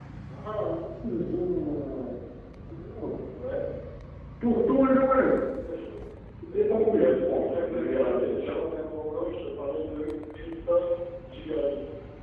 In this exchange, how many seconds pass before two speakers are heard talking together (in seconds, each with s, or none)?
6.5 s